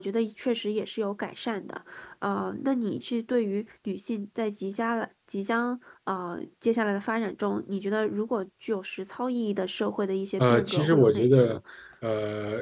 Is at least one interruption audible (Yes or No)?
Yes